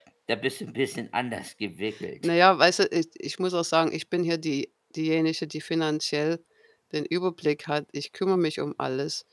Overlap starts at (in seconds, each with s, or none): none